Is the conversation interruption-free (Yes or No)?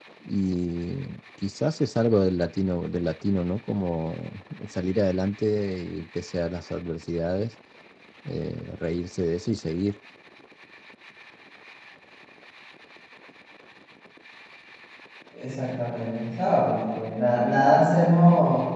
Yes